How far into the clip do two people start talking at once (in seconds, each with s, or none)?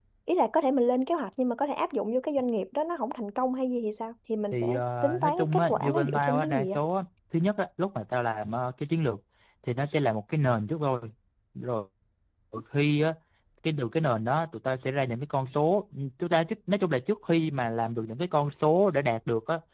4.5 s